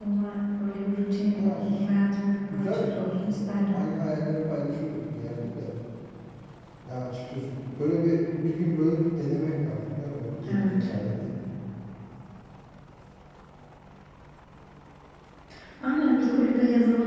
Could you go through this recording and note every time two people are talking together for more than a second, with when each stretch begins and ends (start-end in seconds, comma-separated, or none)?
2.5-3.7